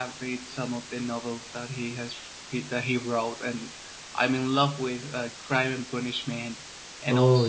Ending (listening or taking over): listening